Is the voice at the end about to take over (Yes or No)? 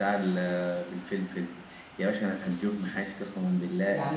Yes